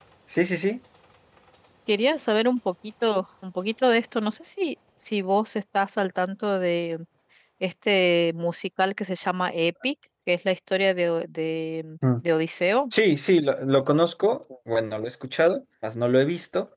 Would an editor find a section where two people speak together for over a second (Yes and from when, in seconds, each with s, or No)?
No